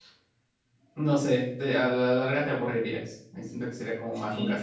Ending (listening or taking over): taking over